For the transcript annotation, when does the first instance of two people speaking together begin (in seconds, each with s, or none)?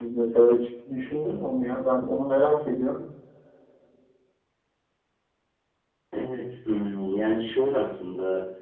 none